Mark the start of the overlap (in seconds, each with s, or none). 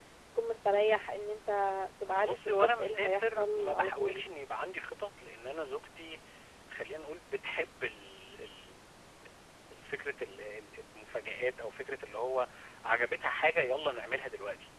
2.2 s